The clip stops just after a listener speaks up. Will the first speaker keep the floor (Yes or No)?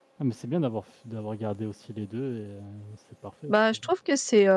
No